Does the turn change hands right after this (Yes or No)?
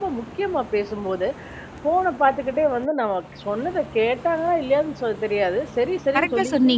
Yes